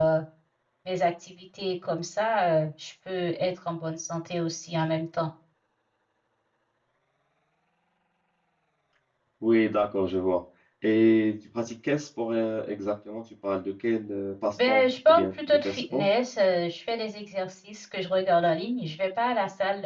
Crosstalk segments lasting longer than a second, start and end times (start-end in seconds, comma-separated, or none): 14.7-16.1